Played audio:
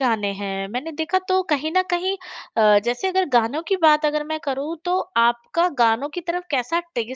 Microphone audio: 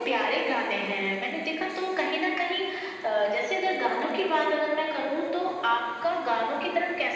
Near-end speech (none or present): none